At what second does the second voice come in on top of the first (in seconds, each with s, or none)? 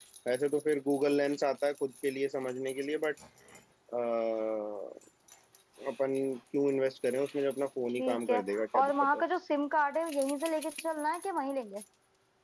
8.0 s